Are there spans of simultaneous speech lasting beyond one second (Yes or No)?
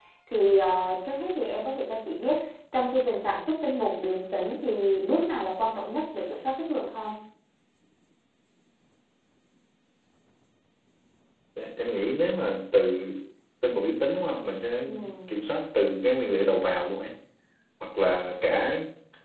No